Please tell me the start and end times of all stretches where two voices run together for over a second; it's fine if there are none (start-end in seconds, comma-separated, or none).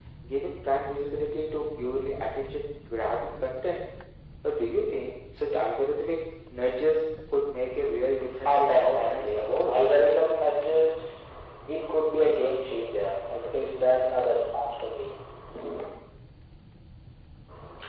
8.4-9.8